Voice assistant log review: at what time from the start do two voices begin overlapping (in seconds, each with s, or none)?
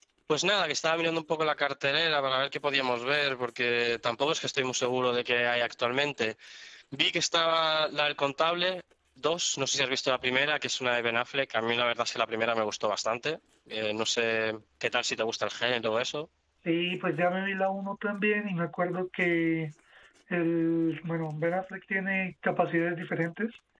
none